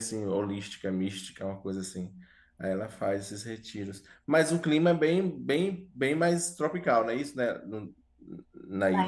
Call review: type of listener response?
taking over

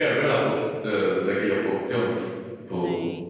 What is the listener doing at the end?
listening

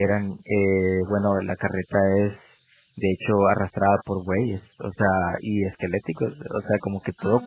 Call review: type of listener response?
listening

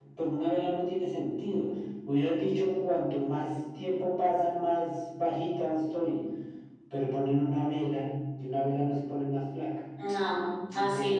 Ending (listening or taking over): taking over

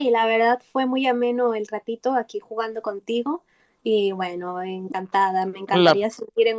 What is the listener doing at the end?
listening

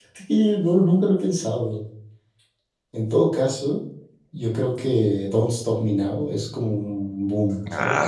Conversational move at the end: taking over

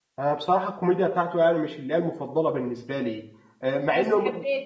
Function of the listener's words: listening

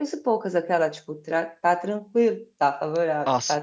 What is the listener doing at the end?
taking over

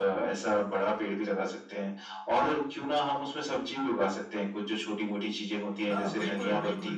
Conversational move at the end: taking over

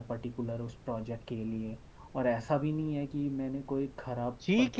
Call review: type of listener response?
taking over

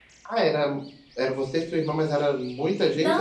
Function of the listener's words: taking over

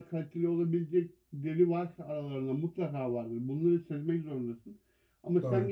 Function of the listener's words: listening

